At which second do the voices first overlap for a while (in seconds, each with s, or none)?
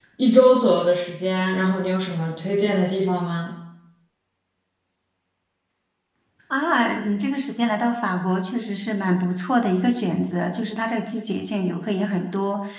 none